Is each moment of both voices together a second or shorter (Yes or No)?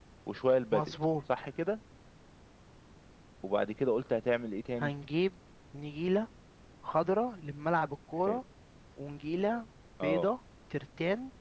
Yes